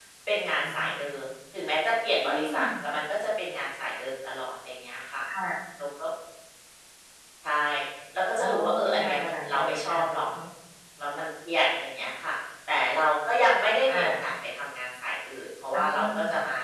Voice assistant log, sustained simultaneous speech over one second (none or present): present